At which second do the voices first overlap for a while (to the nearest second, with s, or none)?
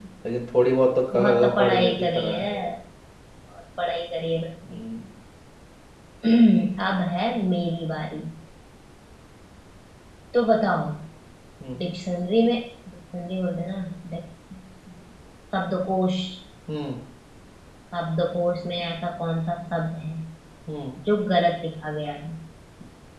1 s